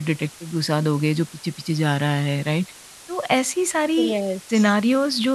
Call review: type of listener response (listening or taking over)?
listening